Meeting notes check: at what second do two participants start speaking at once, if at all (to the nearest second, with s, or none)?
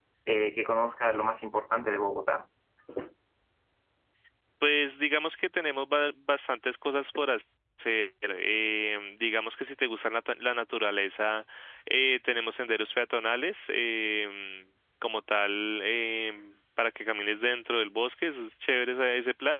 none